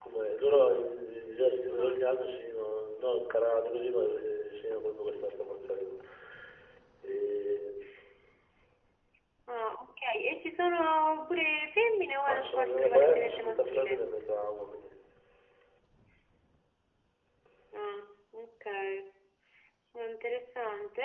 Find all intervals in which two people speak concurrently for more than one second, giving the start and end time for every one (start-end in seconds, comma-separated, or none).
12.3-14.1